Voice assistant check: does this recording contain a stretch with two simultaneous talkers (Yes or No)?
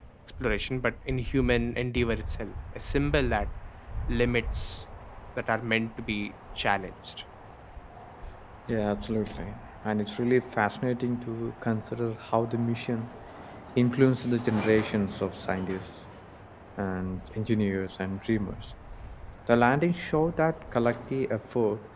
No